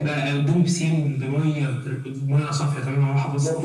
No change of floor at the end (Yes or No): No